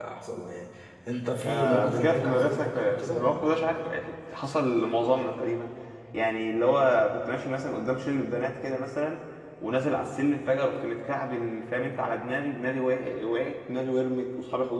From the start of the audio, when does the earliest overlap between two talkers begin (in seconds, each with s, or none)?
1.4 s